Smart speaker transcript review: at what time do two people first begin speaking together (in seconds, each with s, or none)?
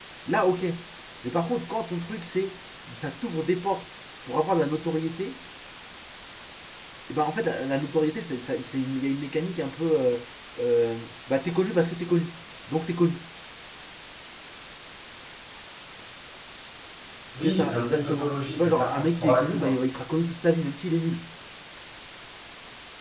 17.4 s